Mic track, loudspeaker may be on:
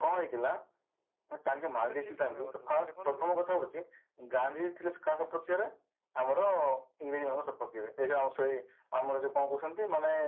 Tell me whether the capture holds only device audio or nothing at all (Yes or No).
No